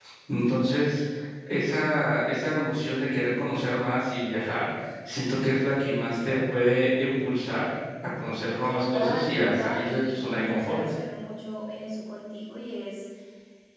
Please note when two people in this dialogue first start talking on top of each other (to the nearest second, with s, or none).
9 s